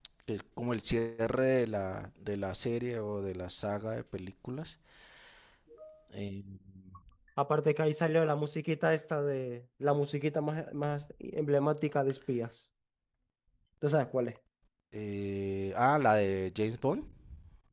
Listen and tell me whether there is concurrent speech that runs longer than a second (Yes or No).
No